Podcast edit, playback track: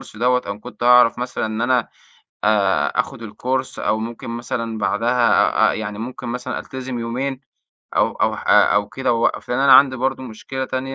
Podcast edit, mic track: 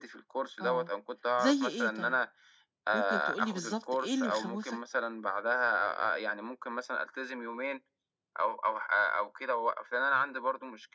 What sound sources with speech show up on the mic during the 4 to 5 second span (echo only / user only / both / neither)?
both